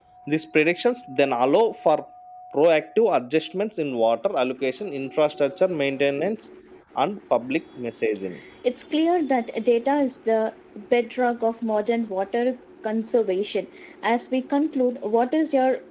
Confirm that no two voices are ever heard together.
Yes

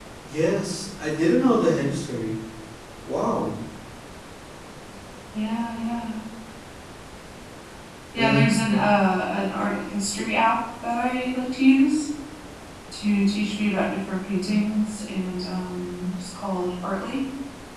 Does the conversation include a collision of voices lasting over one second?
No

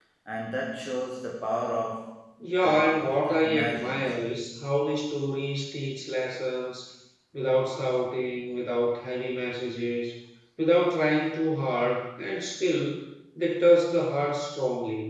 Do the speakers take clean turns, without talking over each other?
No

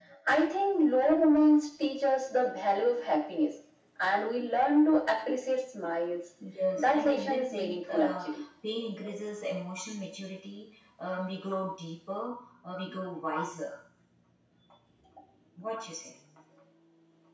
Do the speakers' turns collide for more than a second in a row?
Yes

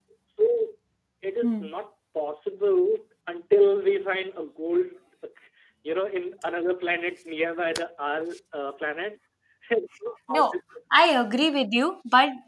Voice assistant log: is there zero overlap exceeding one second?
Yes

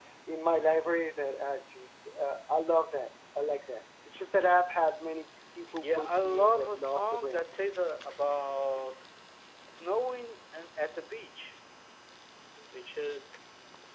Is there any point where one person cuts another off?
Yes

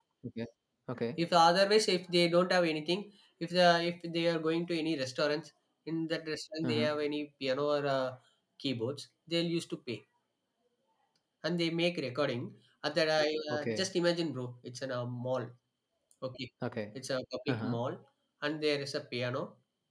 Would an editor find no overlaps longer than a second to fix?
Yes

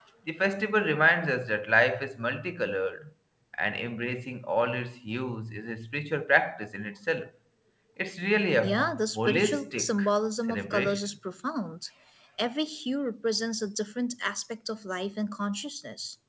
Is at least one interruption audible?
Yes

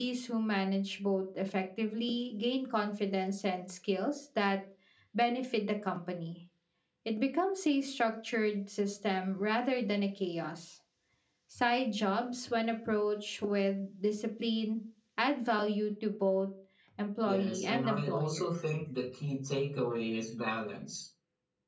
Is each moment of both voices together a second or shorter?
No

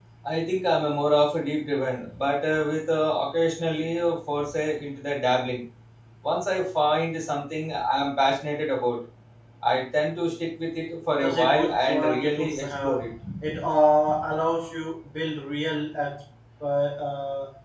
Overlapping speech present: Yes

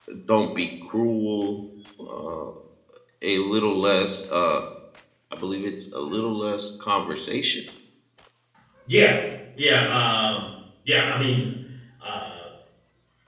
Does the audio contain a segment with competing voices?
No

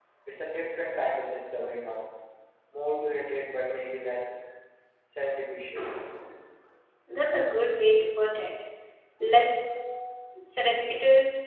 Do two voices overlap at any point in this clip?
No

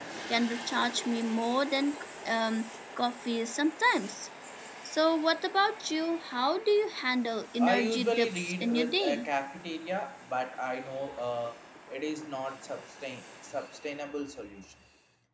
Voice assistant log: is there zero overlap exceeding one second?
No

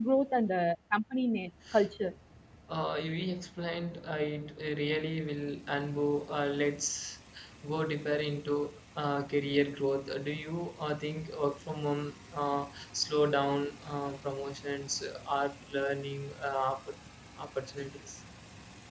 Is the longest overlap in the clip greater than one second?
No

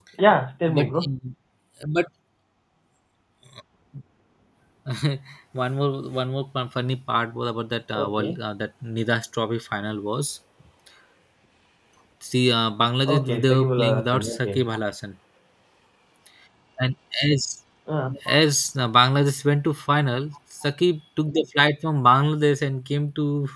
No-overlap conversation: No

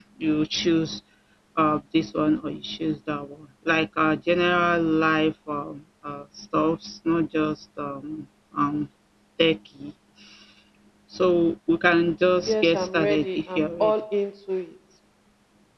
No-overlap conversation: No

